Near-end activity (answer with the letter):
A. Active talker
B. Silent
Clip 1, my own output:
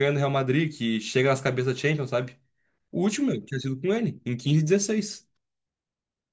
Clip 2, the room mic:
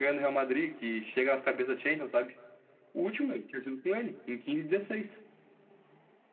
B